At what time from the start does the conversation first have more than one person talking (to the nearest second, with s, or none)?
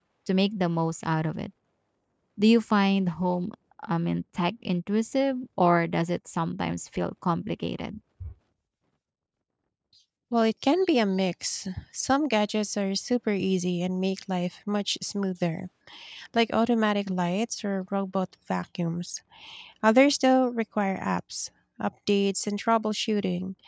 none